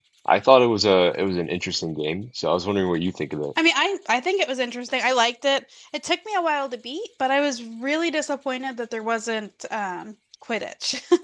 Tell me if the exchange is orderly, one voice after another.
Yes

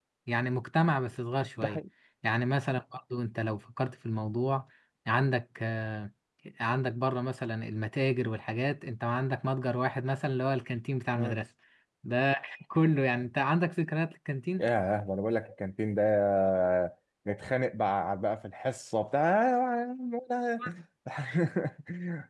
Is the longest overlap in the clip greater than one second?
No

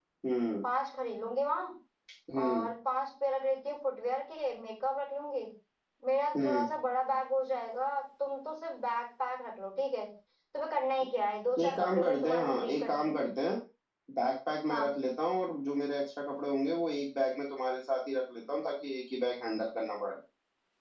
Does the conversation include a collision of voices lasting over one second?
Yes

